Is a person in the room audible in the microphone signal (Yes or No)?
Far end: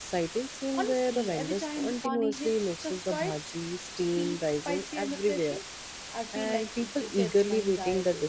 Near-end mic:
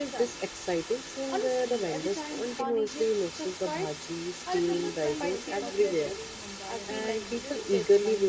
Yes